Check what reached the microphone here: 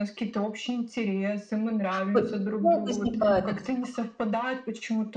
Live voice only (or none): Ш п почему возникает этот страх?